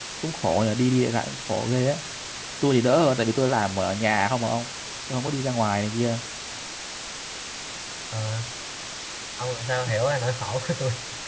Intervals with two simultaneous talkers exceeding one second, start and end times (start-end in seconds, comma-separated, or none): none